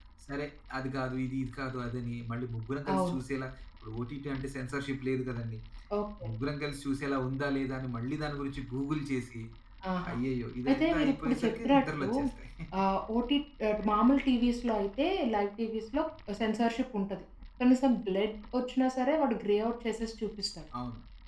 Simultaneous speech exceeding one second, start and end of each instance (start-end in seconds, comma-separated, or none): 10.7-12.1